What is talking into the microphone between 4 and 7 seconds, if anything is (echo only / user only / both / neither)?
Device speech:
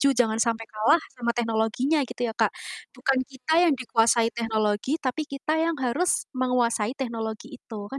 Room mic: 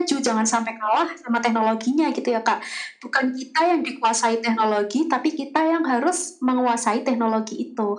echo only